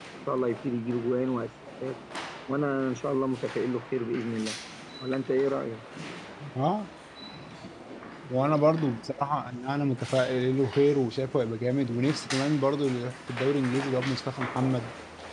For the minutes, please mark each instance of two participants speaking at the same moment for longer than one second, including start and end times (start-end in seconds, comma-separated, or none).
none